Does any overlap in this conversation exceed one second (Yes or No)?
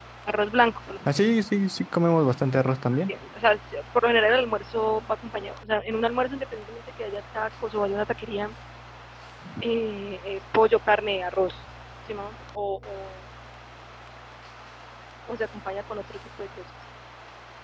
No